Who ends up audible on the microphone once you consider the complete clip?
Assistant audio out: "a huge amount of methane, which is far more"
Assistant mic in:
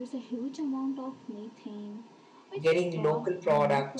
both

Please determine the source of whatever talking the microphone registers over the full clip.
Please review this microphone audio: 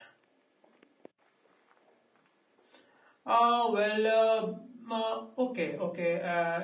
user only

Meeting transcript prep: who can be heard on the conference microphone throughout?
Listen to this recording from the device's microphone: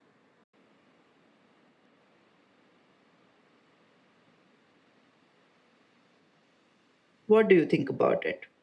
user only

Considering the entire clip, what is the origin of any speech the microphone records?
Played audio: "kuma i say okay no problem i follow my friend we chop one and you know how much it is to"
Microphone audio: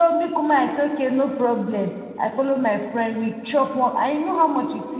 echo only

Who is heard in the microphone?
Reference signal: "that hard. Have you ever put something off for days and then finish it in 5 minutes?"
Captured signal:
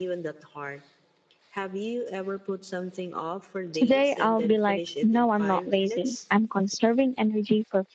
both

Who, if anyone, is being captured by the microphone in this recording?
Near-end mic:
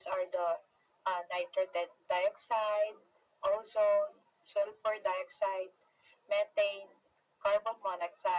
echo only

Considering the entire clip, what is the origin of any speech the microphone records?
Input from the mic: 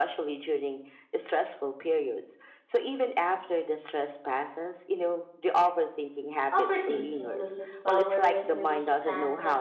both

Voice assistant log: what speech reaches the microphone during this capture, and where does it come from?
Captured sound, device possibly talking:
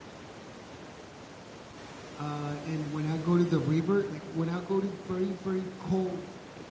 user only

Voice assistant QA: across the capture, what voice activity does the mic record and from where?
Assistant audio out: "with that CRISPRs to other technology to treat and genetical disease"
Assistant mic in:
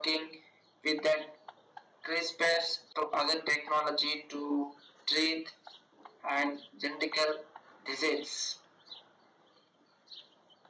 echo only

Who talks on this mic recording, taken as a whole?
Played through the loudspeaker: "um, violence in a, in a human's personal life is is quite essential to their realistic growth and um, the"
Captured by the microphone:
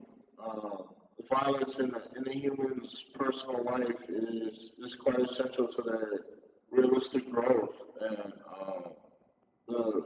echo only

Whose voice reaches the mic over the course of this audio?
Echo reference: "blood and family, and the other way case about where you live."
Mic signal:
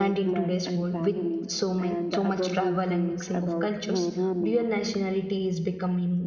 both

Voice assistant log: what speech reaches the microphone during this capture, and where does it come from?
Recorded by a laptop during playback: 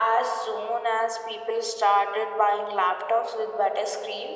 echo only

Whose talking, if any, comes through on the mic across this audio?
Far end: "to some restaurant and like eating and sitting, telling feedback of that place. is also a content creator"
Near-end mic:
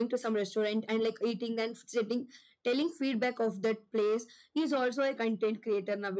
echo only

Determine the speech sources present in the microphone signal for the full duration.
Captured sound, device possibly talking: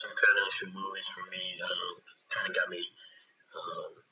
echo only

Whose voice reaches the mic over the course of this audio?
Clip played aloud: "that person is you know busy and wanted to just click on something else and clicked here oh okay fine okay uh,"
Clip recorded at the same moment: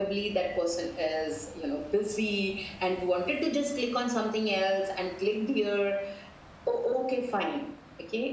echo only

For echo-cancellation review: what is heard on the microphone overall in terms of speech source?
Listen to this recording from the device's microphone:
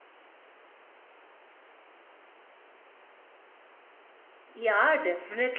user only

